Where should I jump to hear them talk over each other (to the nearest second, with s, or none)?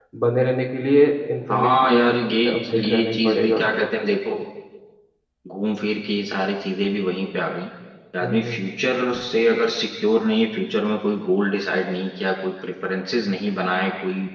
2 s